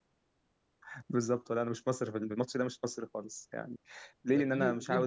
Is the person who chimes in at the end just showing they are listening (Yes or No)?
No